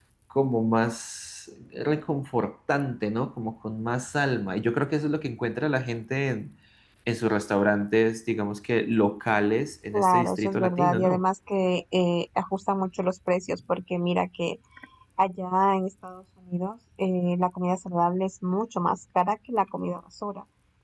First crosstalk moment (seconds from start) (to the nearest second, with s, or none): 10 s